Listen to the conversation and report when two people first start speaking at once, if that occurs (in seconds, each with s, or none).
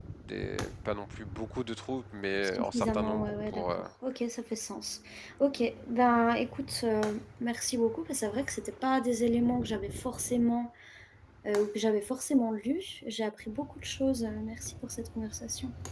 2.4 s